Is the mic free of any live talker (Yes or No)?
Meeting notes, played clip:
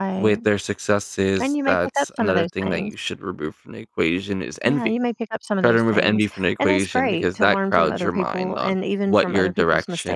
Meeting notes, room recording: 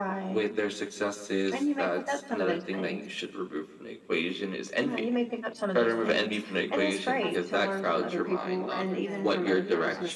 No